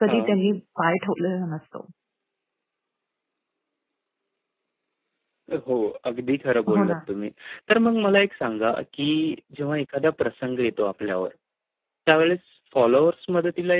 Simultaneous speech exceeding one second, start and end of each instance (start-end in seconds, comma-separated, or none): none